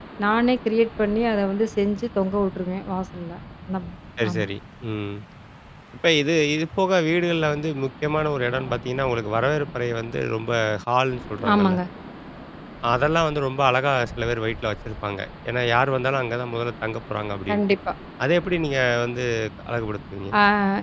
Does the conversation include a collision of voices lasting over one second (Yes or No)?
No